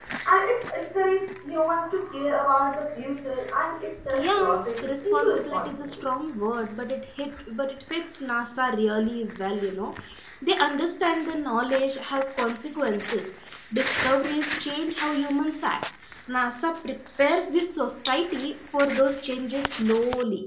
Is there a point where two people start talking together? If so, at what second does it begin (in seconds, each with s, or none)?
4.1 s